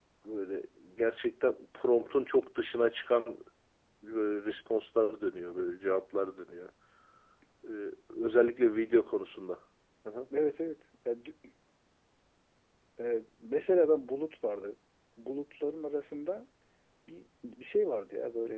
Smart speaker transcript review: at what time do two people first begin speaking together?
none

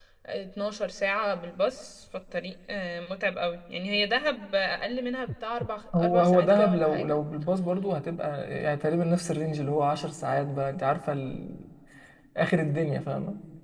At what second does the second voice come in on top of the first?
5.9 s

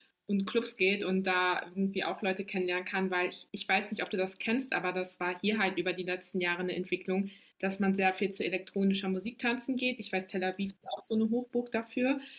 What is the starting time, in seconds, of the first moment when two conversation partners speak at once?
none

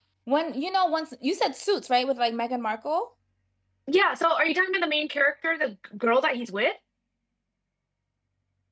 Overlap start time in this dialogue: none

